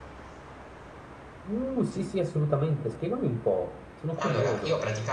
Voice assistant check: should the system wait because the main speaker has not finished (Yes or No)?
No